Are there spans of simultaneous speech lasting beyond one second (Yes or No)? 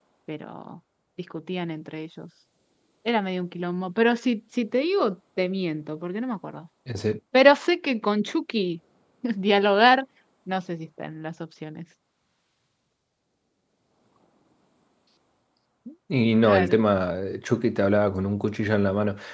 No